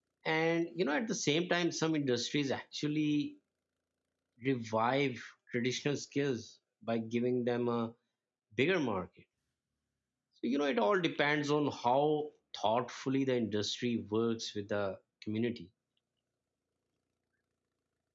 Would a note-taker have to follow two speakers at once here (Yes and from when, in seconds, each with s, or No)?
No